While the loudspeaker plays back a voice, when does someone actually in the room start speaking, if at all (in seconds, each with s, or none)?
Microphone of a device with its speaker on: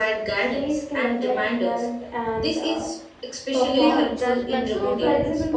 3.8 s